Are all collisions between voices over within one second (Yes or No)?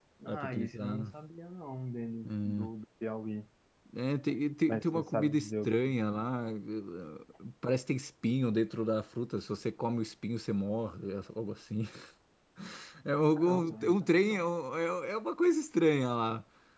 No